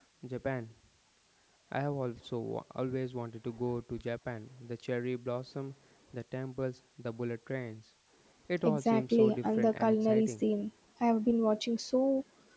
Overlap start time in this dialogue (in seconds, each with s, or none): 8.6 s